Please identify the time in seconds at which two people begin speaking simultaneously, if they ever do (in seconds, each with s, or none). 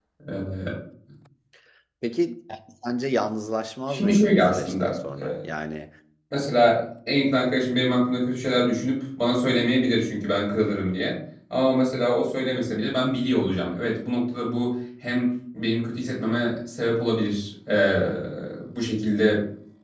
3.9 s